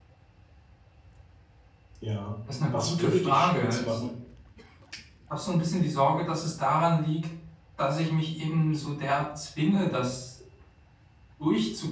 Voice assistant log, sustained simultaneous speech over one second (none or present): present